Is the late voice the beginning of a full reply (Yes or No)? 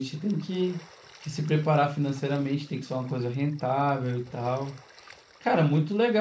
No